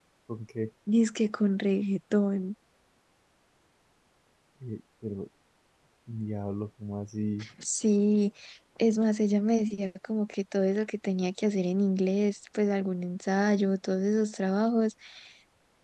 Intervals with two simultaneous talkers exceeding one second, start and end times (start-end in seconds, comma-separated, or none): none